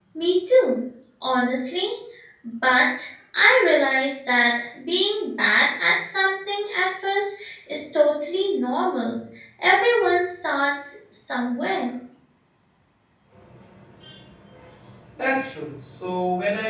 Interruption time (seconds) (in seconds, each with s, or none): none